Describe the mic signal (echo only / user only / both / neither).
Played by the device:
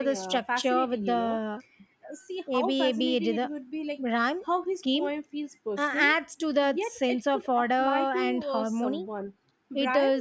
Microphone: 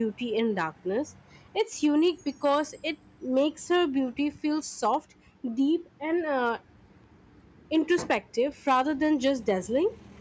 user only